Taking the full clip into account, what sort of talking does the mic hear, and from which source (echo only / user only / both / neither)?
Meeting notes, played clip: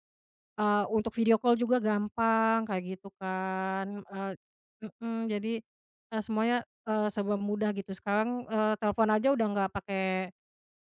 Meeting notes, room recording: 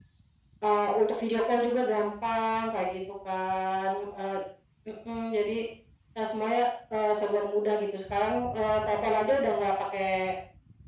echo only